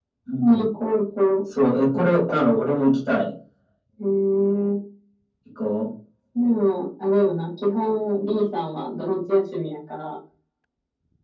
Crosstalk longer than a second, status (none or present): none